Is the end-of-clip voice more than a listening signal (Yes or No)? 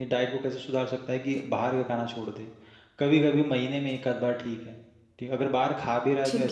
No